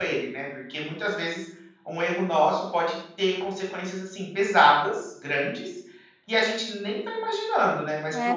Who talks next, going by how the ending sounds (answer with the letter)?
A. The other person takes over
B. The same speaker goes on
A